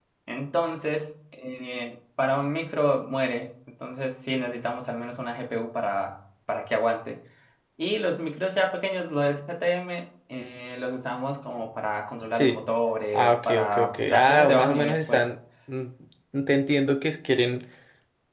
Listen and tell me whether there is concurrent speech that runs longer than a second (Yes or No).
Yes